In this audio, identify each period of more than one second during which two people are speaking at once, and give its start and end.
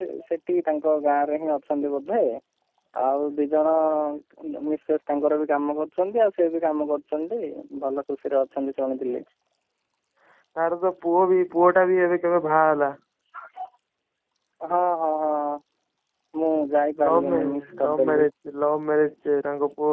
17.1-18.3

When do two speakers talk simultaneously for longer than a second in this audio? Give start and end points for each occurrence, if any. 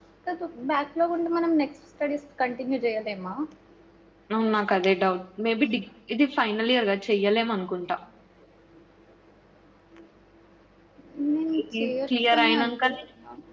11.6-13.0

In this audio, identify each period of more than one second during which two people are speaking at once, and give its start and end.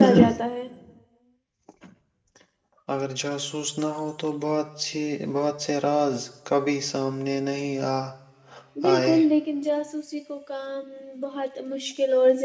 none

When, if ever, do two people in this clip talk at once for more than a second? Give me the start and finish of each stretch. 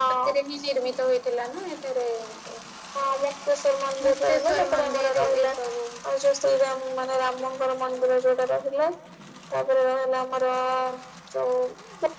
4.0-5.5

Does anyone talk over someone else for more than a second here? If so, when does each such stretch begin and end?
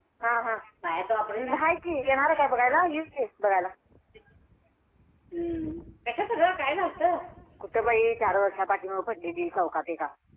none

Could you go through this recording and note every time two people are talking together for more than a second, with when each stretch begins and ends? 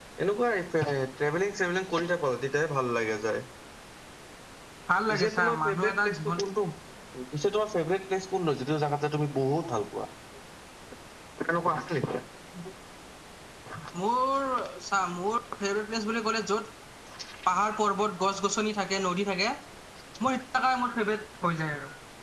5.1-6.4

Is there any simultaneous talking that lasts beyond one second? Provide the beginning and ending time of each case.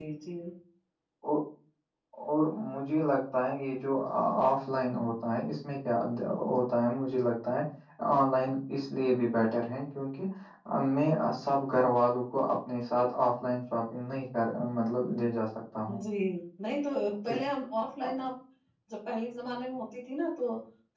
none

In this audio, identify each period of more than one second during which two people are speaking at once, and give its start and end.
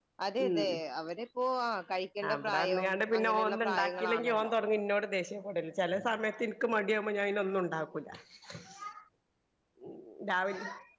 2.3-4.5

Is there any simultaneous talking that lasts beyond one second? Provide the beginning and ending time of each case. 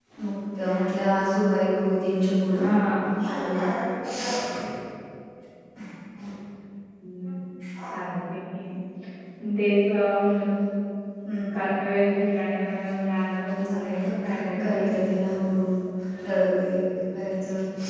13.6-15.2

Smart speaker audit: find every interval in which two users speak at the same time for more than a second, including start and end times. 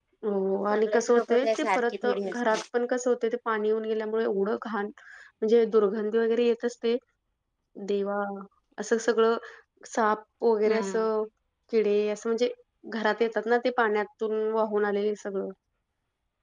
0.7-2.6

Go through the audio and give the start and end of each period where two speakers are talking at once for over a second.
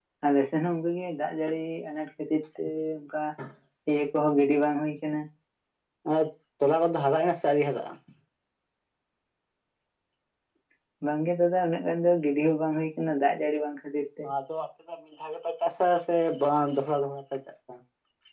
none

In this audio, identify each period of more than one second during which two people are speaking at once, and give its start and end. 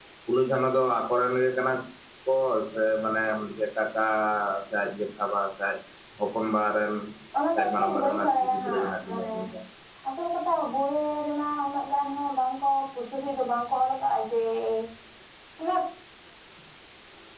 7.5-9.3

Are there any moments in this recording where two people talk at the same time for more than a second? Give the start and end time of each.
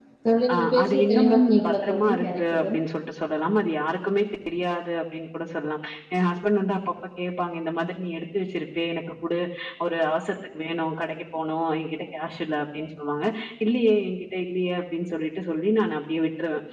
0.5-2.7

